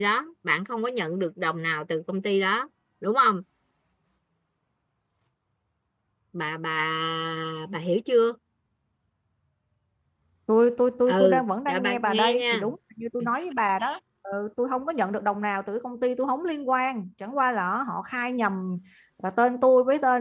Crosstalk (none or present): present